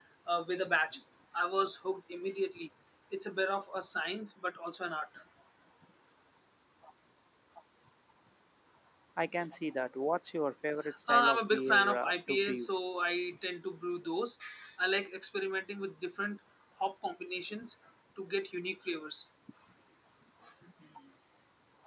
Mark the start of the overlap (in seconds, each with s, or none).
10.8 s